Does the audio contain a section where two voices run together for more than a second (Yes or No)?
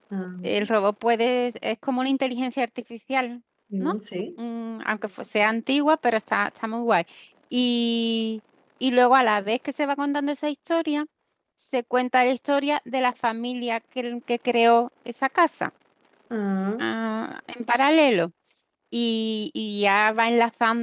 No